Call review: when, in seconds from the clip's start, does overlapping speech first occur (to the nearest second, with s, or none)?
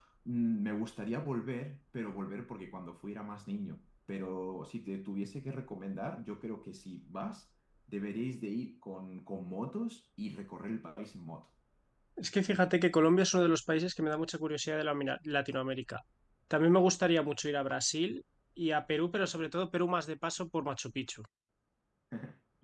none